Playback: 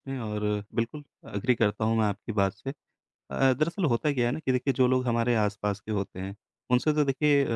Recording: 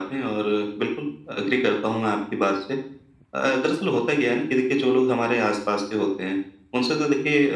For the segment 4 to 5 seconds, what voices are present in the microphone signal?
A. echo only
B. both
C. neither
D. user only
A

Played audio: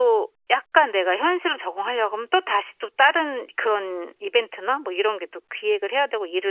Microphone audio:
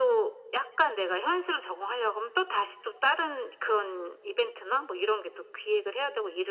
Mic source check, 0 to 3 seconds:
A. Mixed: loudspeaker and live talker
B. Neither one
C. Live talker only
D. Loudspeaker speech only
D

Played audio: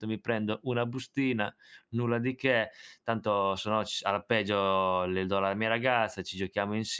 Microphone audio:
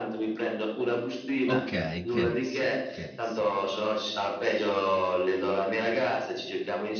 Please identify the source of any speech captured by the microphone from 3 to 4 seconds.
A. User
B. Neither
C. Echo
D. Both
D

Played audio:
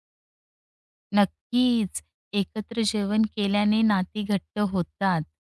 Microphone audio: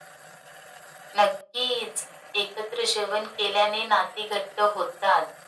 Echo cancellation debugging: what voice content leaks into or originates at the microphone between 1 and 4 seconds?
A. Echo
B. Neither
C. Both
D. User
A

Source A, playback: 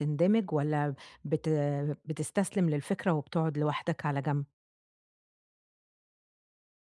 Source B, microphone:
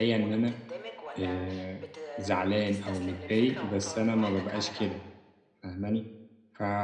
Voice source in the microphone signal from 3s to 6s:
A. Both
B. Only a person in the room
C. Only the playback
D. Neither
A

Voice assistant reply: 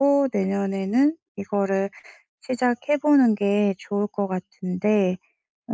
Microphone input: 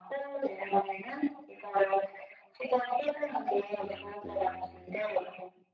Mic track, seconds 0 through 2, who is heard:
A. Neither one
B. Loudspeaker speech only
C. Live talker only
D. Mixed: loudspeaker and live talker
B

